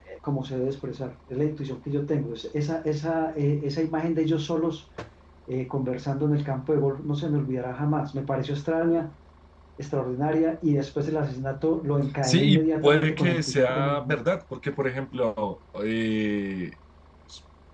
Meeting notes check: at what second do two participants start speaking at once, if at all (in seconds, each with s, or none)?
12.2 s